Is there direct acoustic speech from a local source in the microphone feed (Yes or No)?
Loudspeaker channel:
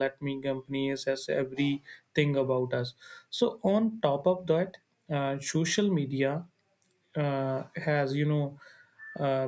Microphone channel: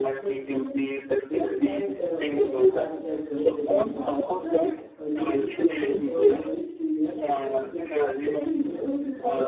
Yes